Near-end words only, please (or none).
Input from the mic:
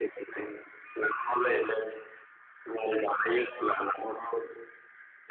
none